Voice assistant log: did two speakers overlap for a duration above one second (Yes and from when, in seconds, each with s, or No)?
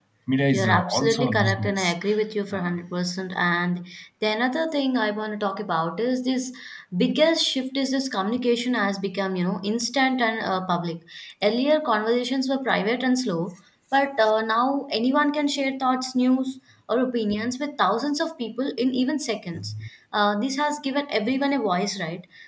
Yes, from 0.5 s